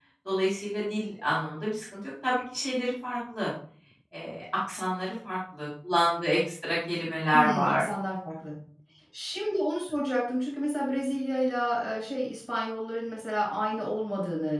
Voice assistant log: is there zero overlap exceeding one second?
Yes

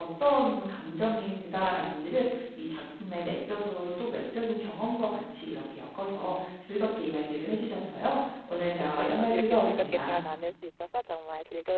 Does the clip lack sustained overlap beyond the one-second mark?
No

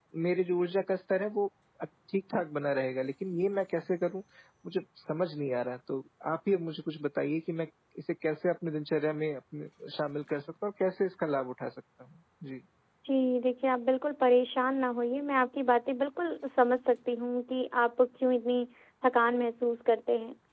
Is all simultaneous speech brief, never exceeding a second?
Yes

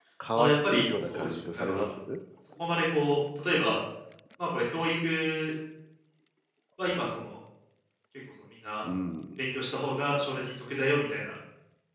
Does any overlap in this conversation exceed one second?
Yes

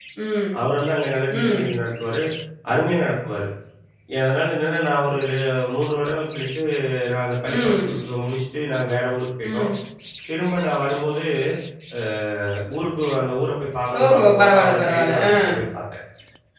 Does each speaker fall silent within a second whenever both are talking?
No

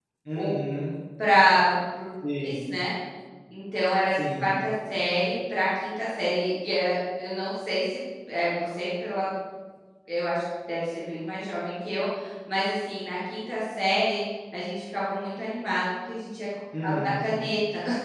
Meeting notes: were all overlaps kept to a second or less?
Yes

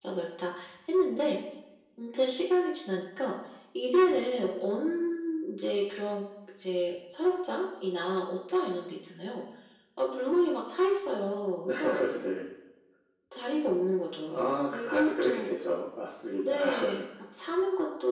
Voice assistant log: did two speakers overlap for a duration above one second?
Yes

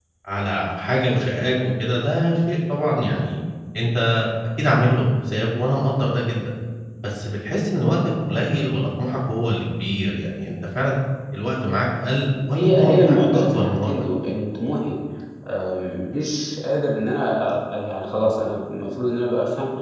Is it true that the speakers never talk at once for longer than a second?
No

